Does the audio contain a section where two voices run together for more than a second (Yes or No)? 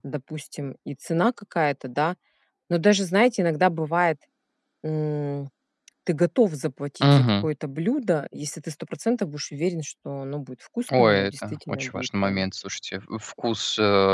Yes